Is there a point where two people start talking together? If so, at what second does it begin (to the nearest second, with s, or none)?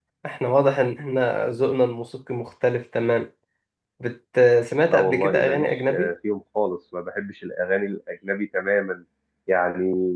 5 s